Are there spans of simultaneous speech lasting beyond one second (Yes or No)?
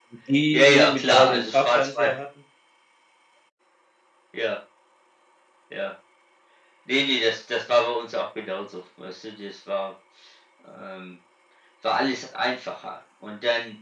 Yes